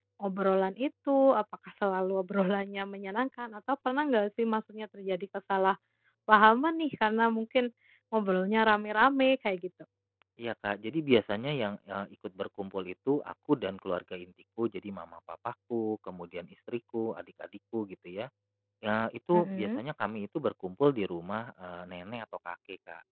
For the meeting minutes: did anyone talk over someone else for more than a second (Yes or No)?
No